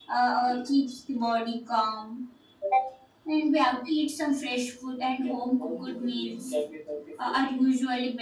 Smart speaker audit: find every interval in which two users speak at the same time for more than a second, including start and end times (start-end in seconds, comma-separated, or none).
5.2-6.5